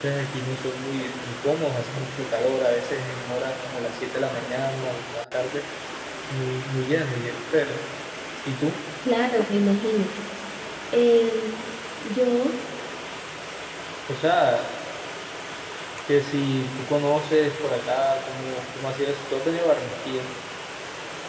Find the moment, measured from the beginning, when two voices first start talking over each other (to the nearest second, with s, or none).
none